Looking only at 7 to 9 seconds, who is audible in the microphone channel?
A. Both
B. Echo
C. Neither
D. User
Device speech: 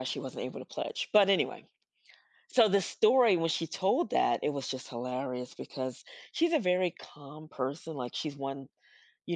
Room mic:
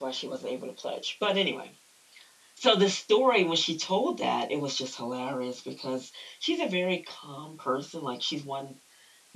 B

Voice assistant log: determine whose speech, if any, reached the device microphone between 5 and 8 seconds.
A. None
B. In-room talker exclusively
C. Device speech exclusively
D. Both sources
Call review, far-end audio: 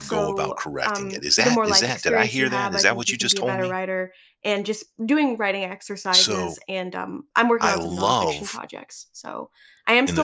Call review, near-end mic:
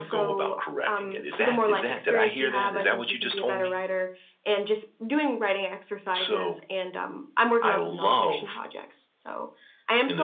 C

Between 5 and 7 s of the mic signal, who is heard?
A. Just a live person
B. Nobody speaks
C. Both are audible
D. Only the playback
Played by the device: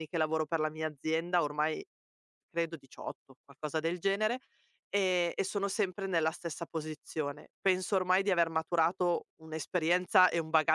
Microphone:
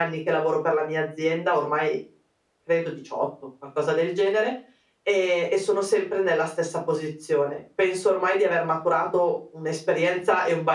D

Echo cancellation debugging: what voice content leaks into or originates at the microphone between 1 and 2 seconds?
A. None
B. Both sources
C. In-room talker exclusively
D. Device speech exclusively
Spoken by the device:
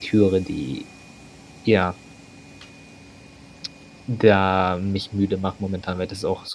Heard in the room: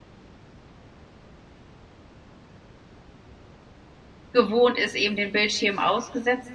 A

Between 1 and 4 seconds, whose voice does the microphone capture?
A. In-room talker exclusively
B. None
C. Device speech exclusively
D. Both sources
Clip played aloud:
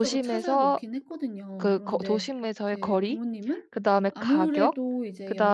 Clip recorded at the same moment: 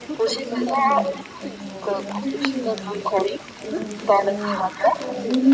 D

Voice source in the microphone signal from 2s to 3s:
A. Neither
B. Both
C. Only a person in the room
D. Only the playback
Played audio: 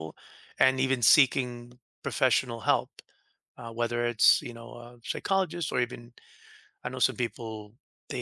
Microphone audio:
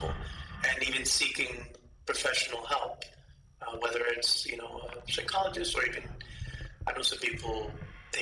D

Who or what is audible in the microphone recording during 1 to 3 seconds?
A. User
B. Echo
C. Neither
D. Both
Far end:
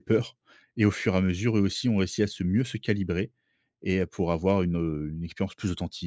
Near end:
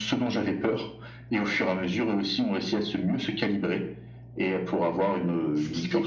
B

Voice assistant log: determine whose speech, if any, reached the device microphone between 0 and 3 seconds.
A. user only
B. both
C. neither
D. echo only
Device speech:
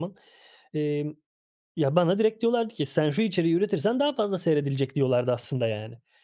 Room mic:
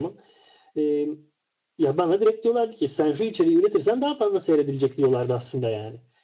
D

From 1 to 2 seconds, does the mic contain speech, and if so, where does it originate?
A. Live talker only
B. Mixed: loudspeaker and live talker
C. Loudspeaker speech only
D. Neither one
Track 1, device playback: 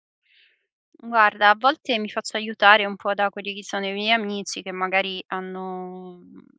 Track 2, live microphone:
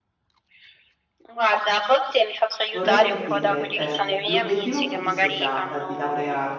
C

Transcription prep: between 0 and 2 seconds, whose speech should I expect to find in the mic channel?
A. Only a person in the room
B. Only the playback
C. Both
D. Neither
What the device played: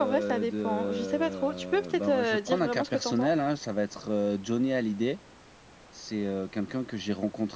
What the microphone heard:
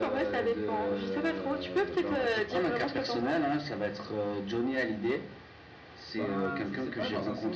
B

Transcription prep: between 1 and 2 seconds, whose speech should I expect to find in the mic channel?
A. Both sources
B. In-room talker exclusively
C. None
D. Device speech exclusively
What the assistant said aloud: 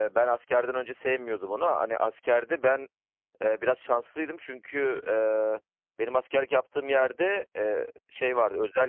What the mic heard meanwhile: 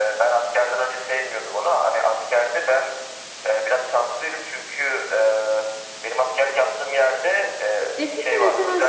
D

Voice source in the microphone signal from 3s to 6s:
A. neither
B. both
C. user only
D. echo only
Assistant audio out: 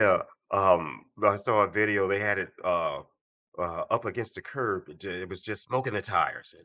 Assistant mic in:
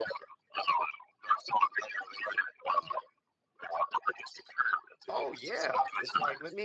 B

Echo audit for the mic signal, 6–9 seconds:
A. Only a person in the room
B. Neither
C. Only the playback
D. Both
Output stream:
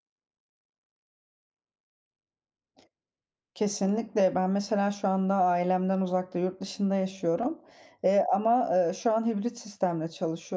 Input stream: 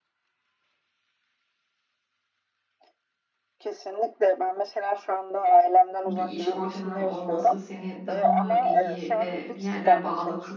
D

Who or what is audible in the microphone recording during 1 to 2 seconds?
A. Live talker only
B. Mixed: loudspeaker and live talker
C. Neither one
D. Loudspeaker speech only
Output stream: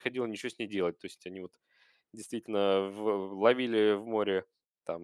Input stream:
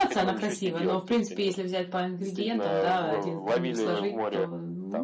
B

